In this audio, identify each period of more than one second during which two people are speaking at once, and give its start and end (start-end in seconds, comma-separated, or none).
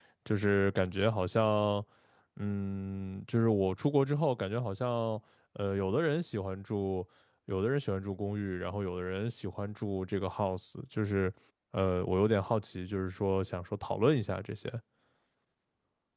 none